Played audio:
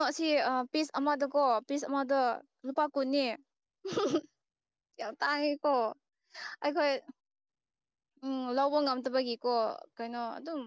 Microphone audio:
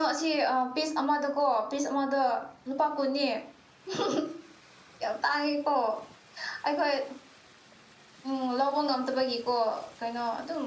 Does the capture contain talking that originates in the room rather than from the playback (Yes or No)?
No